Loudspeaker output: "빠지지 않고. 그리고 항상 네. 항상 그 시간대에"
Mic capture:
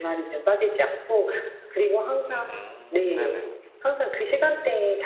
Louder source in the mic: echo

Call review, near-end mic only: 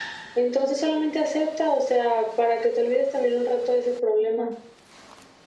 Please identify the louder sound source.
echo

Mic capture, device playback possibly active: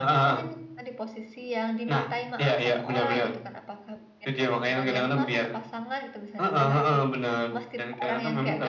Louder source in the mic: echo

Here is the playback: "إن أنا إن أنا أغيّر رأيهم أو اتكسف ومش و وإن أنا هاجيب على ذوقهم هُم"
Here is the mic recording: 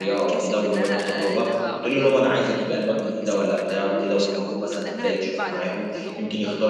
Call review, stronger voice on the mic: user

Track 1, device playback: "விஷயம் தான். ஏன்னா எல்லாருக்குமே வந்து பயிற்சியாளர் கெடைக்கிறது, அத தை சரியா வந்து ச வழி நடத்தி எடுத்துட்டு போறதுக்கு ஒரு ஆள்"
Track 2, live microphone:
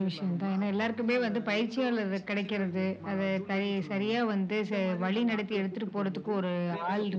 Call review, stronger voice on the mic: echo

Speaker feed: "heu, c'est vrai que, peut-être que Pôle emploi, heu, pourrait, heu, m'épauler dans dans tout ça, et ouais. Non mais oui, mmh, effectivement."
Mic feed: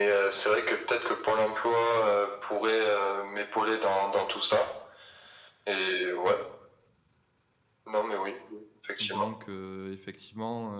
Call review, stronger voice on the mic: echo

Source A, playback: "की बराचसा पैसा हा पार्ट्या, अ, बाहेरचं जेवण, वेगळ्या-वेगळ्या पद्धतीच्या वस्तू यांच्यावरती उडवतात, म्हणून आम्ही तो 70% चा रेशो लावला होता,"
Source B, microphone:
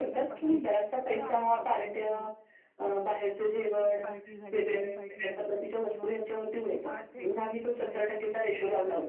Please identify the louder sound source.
echo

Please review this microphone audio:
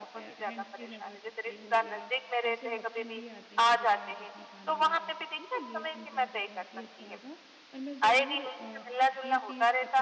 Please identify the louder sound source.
echo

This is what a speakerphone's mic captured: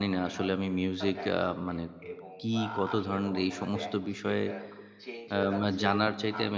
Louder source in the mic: user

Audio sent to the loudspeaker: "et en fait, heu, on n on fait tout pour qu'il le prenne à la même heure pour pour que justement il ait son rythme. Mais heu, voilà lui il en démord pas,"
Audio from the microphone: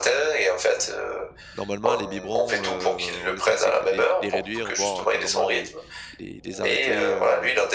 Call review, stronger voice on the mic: echo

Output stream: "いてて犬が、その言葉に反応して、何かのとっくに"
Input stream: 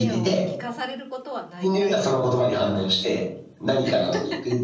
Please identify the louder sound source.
echo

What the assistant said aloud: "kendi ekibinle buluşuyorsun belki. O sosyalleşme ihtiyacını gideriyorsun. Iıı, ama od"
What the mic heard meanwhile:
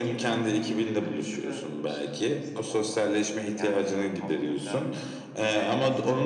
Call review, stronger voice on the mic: echo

